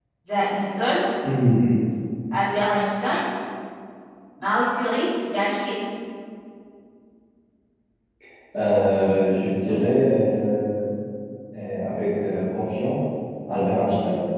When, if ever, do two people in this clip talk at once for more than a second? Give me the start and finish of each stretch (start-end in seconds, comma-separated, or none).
none